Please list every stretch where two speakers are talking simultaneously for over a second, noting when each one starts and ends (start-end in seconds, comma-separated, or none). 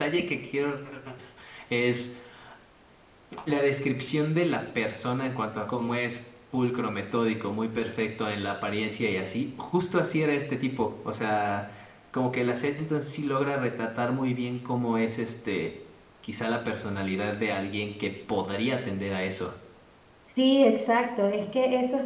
none